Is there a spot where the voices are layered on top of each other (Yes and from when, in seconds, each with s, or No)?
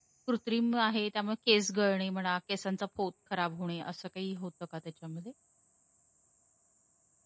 No